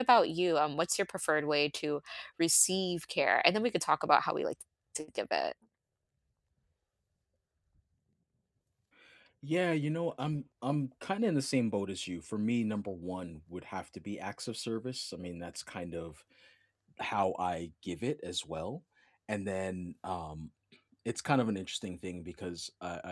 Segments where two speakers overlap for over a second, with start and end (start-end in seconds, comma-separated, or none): none